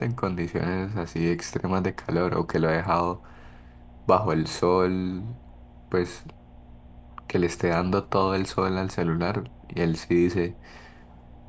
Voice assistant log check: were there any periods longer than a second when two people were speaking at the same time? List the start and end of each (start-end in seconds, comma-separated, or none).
none